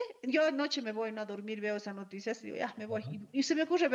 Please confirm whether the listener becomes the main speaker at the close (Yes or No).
No